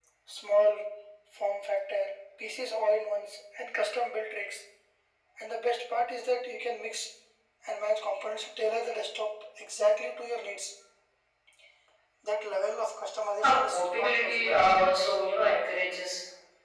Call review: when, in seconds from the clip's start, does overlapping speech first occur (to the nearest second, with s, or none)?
13 s